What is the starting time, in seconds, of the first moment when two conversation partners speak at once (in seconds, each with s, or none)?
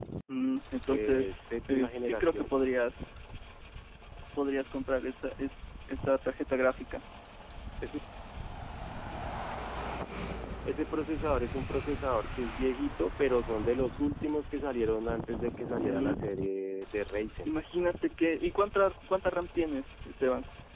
0.9 s